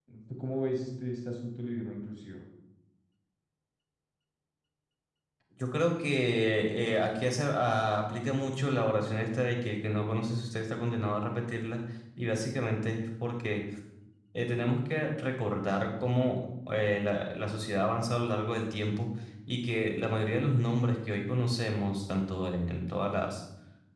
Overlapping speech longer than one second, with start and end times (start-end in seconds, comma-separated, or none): none